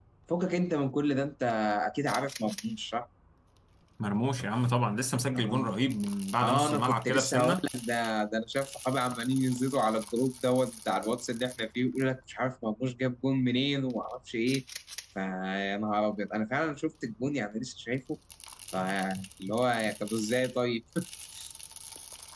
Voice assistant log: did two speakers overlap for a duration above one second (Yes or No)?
Yes